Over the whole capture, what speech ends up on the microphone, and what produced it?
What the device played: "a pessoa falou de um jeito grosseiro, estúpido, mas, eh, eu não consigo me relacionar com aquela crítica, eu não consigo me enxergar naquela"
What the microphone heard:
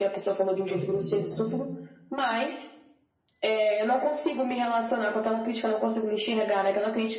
both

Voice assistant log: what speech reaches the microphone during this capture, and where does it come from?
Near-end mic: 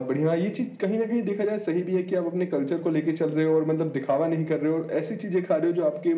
echo only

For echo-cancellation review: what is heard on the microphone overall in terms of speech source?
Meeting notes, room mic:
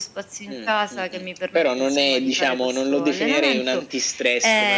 echo only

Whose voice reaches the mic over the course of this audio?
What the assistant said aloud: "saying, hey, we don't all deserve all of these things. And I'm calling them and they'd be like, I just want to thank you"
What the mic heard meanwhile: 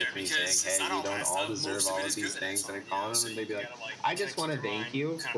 both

